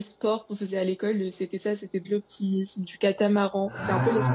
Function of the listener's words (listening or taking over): listening